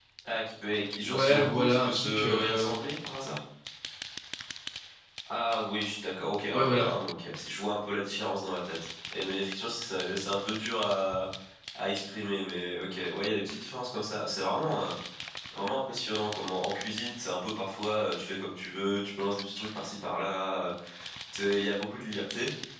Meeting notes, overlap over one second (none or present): present